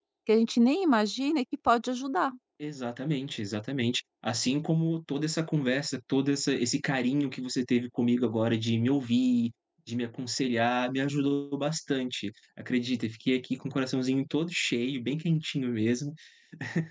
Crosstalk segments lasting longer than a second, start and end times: none

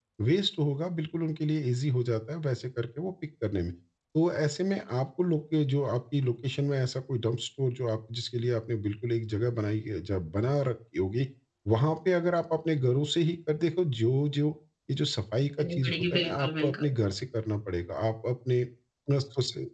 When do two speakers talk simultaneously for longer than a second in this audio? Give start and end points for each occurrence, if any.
15.6-16.9

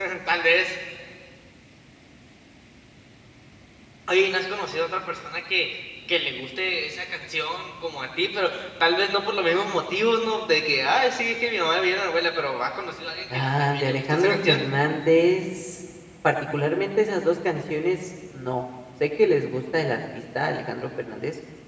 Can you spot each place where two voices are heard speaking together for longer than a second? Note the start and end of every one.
13.3-14.6

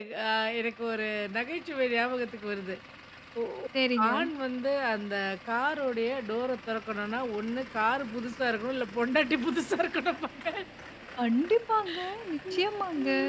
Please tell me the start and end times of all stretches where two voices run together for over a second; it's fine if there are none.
none

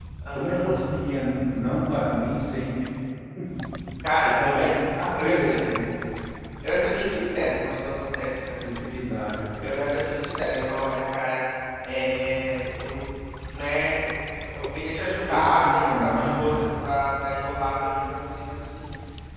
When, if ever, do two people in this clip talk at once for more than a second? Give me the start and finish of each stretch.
15.3-16.7

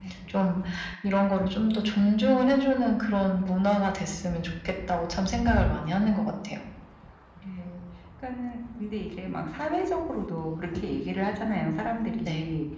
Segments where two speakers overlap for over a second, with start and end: none

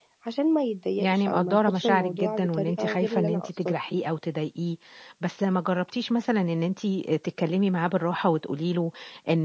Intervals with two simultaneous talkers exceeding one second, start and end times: 1.0-3.8

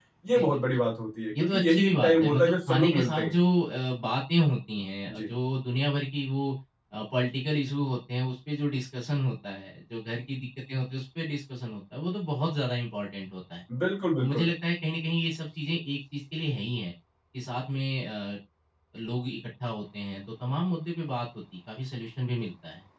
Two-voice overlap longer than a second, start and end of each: 1.4-3.3

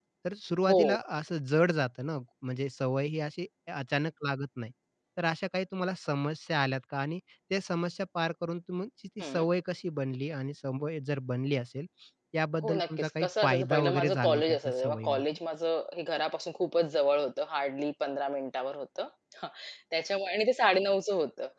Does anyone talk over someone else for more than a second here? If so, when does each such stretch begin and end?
12.6-15.2

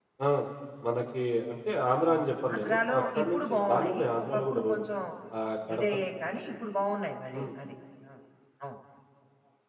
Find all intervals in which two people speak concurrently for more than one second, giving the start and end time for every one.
2.5-4.8

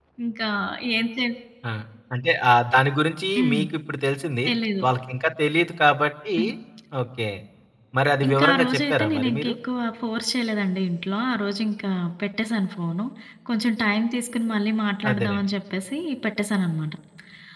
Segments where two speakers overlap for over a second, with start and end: 8.3-9.5

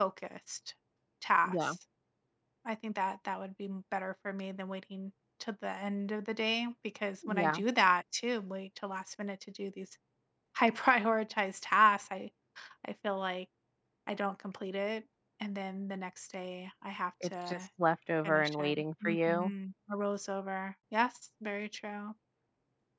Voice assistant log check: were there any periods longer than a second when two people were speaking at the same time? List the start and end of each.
18.2-19.5

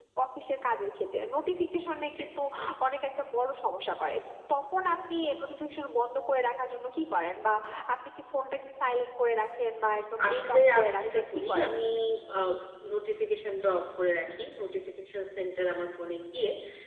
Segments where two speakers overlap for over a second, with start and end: 10.3-11.7

